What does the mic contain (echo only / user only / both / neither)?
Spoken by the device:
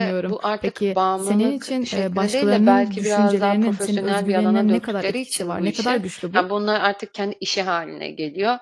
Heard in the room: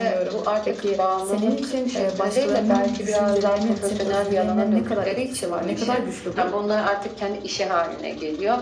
echo only